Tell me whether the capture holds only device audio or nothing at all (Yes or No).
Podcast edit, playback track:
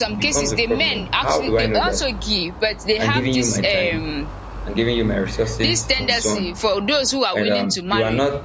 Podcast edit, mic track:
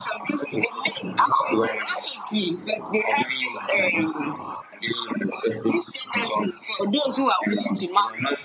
Yes